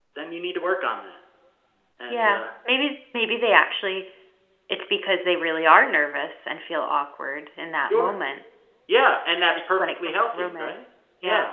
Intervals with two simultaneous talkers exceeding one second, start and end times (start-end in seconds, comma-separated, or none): 9.5-10.7